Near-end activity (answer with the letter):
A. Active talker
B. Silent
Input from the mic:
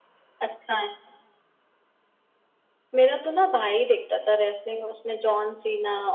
B